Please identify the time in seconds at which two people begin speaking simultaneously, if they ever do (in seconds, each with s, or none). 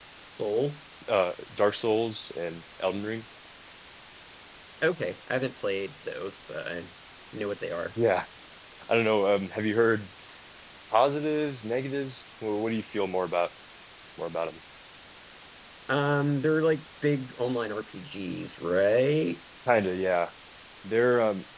none